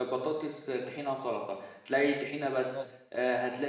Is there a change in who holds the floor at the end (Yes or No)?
No